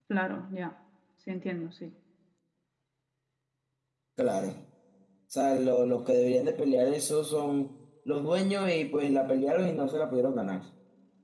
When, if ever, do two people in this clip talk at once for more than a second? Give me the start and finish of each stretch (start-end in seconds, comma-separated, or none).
none